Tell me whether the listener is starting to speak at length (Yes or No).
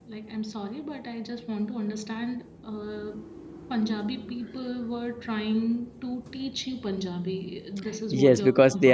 Yes